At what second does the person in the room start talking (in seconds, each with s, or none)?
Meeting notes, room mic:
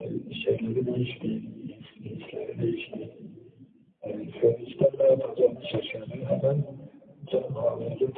none